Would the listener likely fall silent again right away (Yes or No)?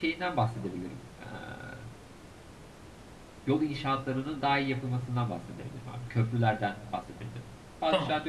Yes